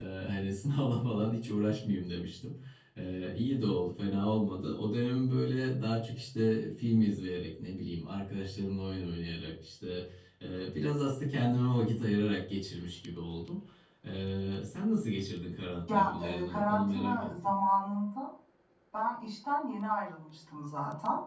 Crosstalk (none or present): present